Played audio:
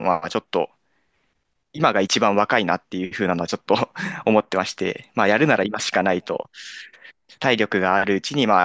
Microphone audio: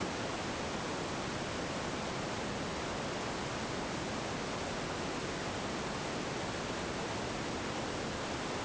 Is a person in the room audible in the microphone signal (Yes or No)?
No